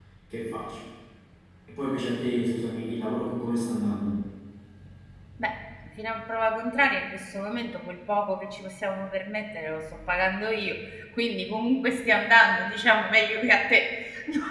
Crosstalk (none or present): none